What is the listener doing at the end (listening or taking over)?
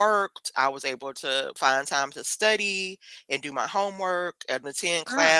listening